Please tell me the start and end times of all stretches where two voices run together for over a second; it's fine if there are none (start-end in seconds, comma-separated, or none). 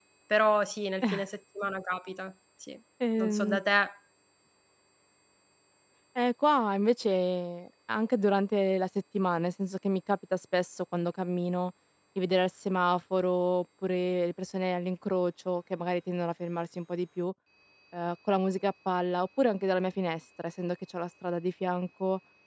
none